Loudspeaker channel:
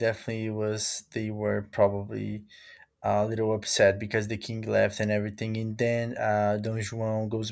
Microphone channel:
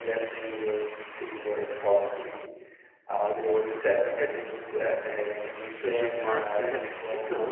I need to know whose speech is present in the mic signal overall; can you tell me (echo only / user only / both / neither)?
both